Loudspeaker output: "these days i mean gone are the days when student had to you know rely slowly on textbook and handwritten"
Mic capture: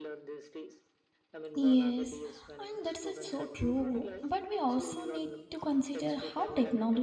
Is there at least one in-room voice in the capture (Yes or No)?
Yes